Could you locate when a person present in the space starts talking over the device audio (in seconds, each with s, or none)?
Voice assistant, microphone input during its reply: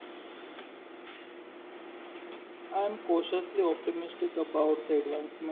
2.7 s